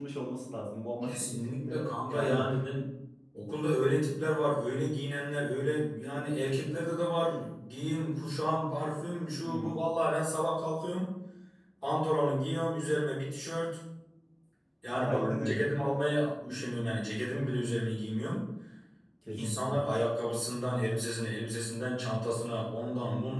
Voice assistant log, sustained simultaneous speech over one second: present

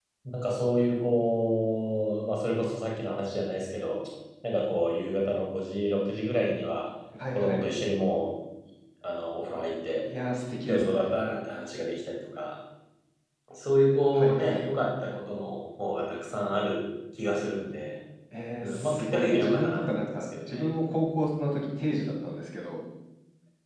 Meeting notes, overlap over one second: present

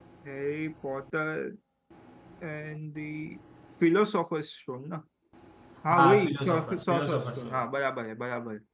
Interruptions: present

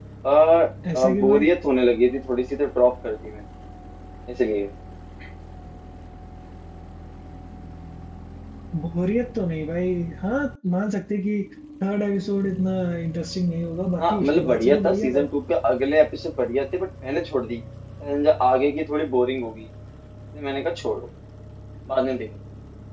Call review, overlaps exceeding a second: present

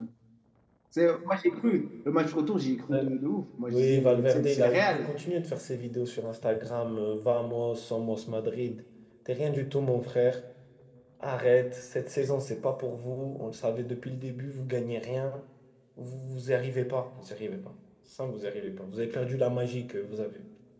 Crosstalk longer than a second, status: present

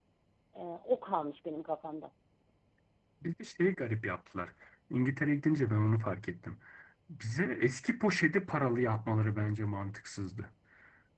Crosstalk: none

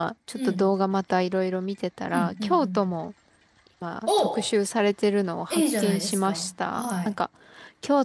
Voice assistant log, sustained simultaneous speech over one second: present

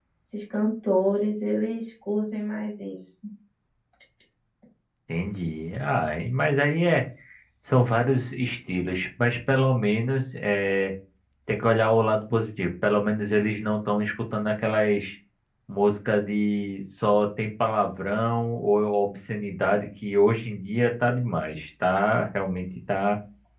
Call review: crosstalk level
none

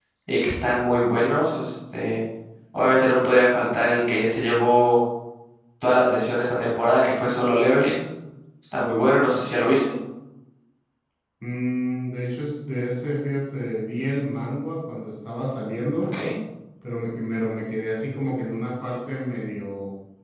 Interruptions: none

